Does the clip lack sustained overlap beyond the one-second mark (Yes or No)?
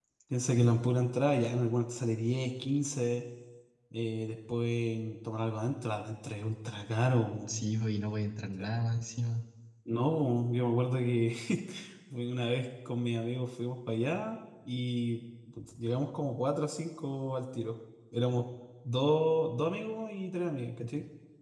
Yes